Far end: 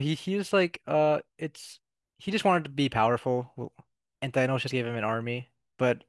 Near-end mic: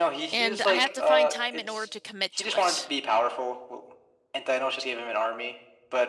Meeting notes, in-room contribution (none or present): present